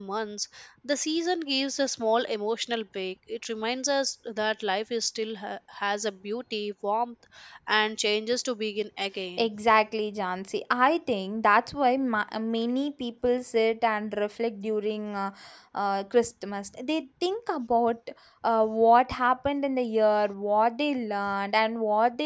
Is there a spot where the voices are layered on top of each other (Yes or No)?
No